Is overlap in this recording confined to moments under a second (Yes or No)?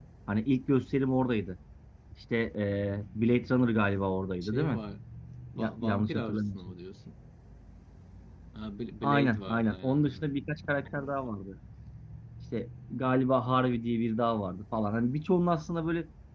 No